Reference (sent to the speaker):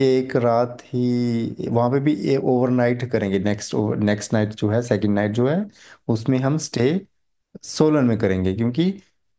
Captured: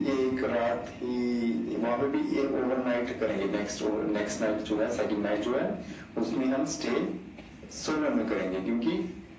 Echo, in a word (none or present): present